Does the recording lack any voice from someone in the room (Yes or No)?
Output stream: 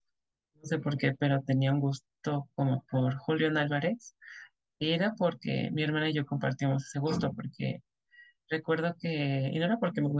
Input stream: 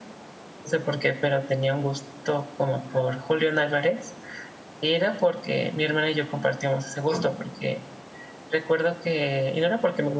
Yes